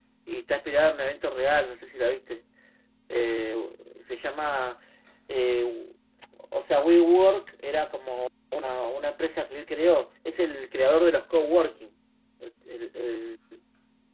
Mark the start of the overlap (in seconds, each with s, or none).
none